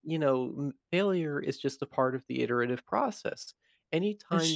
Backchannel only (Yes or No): Yes